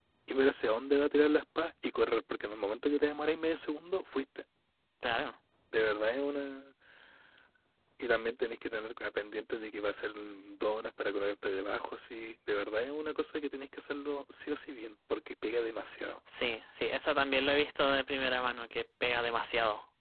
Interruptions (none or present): none